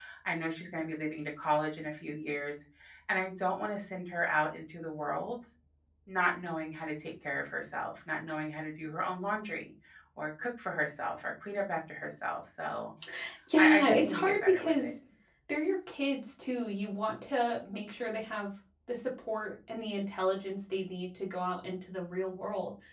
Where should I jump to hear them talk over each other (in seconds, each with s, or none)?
13.6 s